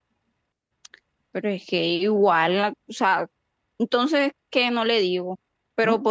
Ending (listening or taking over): listening